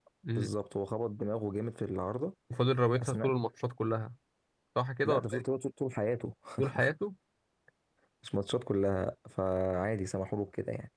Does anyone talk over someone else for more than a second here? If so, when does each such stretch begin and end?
none

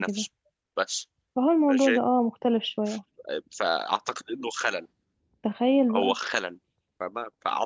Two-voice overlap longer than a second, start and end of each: none

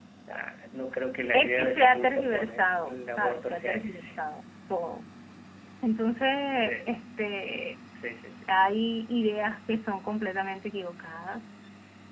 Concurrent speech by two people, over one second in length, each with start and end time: 1.3-4.1

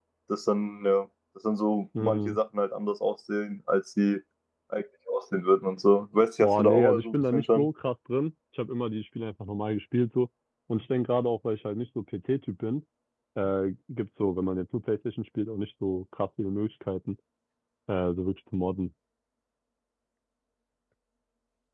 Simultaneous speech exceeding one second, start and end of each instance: 6.4-7.7

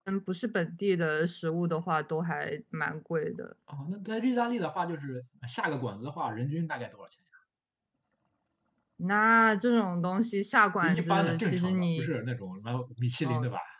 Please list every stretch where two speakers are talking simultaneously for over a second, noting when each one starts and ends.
10.8-12.1

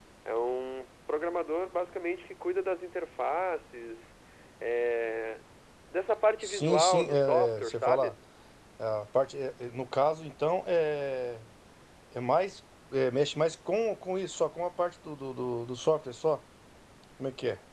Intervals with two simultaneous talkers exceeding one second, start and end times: 6.4-8.1

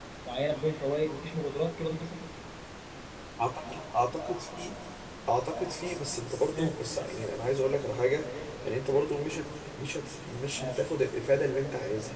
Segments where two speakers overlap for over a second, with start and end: none

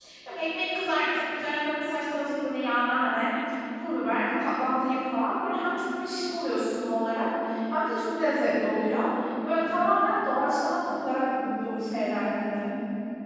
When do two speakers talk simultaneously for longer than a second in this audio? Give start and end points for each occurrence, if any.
none

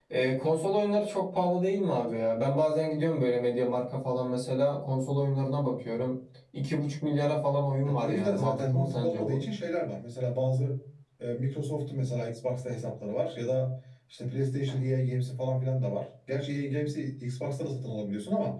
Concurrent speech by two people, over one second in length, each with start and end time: 7.8-9.4

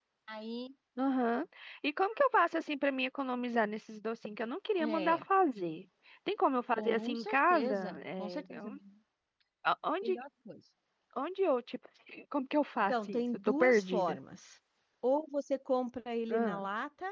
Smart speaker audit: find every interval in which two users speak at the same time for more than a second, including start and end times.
6.8-8.7, 12.9-14.2

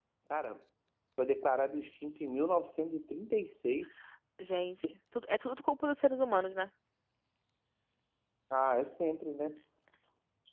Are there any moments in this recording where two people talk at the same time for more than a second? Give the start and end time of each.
none

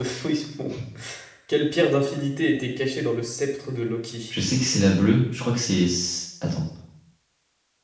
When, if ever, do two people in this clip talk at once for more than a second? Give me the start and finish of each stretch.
none

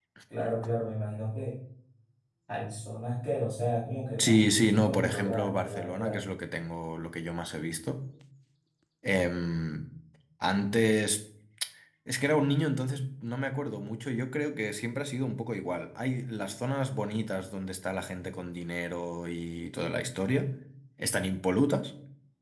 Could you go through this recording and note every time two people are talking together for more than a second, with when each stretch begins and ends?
4.2-6.2

